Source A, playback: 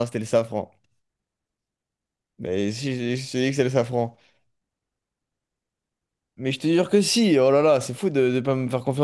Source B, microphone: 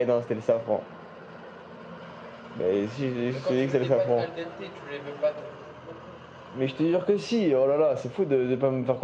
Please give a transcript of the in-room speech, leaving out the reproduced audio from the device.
Mais quand tu veux des pâtes al dente, tu les veux pas trop non plus.

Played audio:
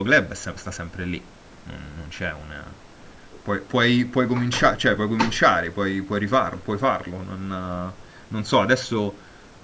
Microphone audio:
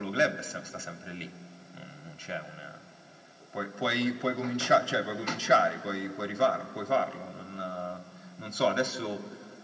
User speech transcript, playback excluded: none

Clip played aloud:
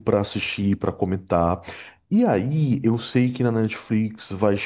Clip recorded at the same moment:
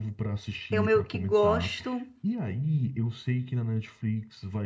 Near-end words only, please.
eu meio que gosto

